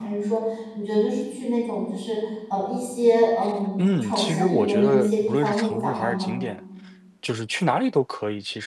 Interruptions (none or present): present